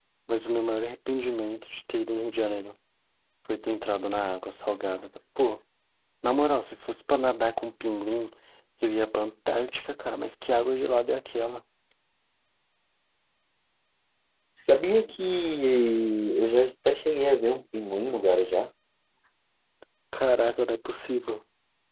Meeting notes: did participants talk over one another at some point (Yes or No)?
No